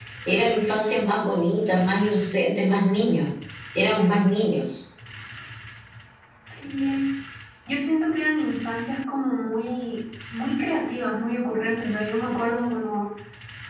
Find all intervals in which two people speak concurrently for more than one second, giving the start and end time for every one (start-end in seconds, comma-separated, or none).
none